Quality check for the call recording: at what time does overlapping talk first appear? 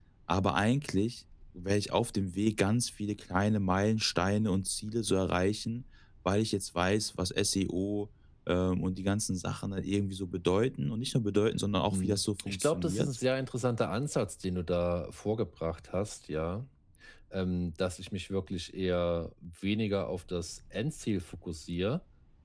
11.9 s

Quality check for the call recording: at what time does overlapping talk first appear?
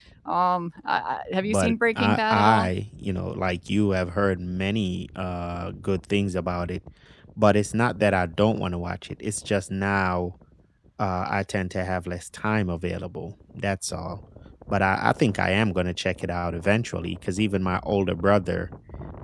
1.4 s

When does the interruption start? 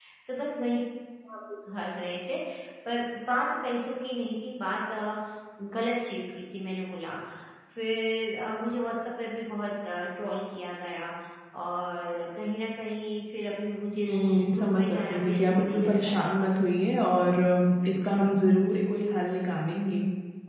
14.0 s

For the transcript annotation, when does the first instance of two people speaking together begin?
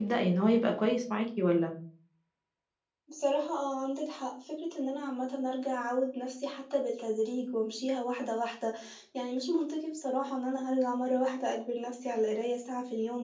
none

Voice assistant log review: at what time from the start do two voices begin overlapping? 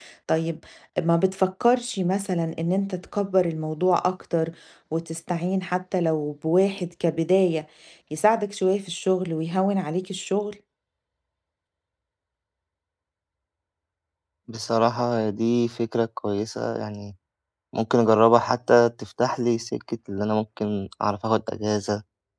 none

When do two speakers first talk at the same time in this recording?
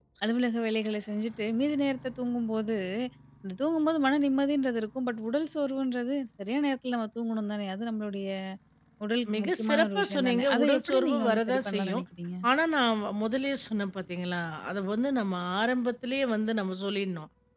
9.3 s

